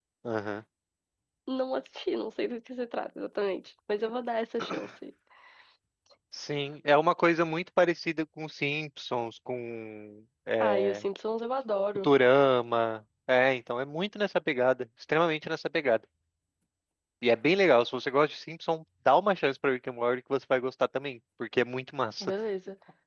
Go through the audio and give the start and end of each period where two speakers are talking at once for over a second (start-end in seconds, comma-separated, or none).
none